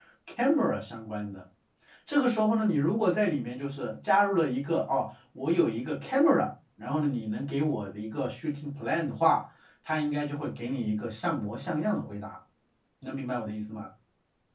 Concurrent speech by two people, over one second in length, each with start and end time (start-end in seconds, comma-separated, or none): none